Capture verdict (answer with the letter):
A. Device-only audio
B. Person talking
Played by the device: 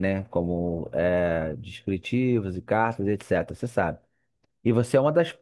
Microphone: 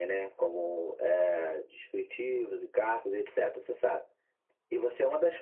A